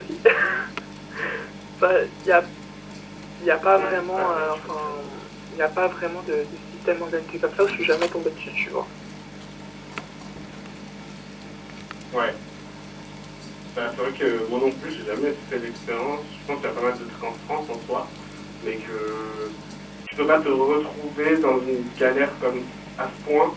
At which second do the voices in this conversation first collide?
4 s

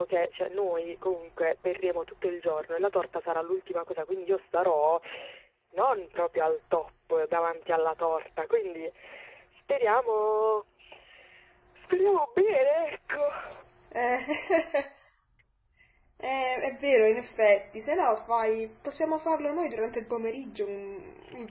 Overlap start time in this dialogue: none

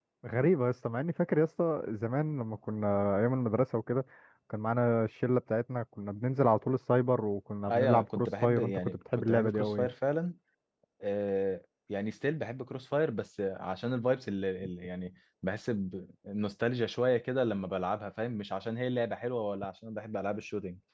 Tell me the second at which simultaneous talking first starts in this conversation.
8 s

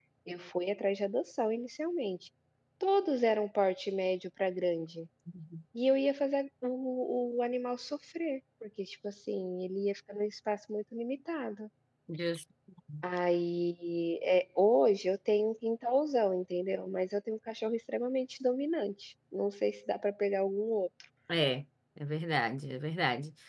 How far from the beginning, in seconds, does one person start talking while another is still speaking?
none

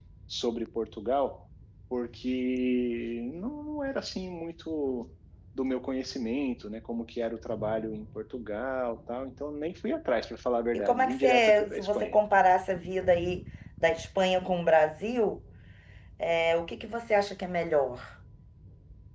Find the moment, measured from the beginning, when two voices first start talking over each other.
11 s

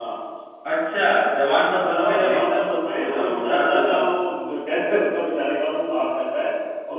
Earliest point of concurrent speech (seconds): 2 s

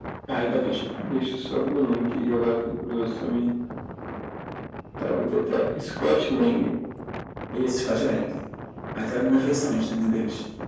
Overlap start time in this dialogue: none

